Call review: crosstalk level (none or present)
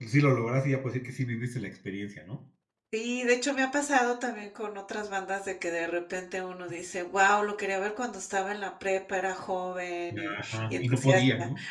present